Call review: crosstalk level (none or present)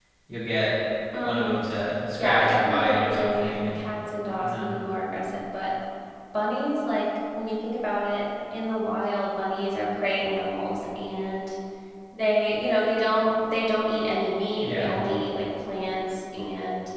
present